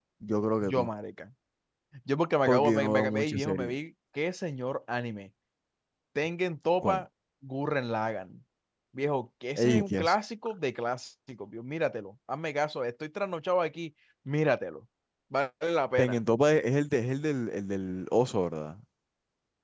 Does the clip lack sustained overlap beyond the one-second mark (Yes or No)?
No